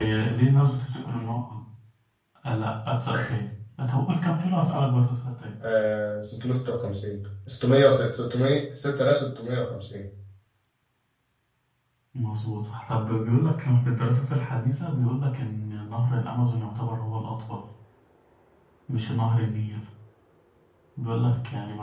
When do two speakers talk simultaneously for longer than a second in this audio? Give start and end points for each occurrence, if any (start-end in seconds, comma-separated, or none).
none